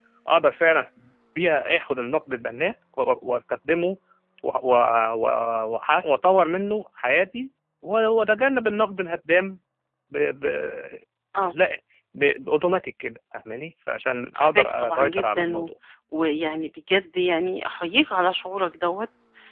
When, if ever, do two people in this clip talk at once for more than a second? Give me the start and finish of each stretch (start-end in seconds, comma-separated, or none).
14.3-15.7